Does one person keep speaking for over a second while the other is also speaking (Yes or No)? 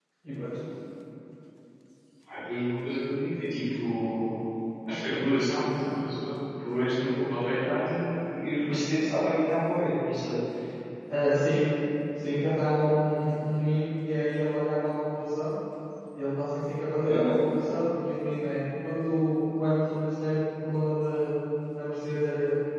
No